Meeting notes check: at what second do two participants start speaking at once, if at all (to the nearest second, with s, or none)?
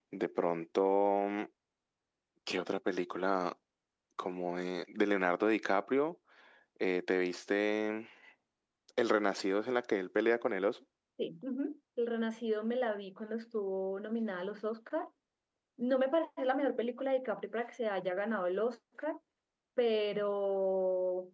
none